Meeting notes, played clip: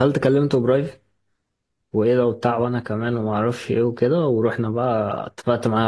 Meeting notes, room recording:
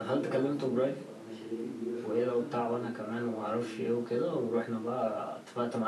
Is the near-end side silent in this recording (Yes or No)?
No